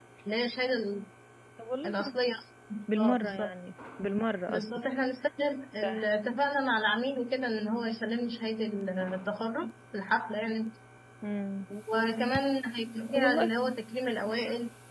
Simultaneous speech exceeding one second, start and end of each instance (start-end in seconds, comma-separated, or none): none